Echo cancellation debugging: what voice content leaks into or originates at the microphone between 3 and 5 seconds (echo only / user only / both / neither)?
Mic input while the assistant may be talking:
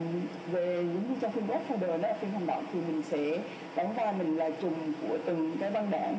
echo only